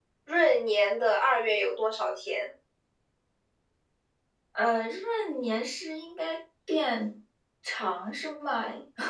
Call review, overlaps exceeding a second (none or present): none